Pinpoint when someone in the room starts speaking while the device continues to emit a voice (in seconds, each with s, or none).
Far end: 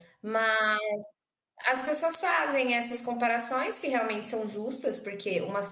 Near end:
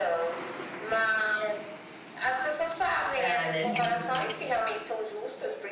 3.2 s